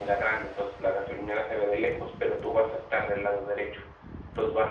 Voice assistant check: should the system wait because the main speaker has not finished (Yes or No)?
Yes